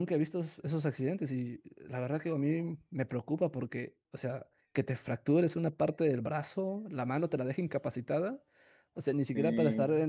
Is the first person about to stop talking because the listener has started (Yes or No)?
No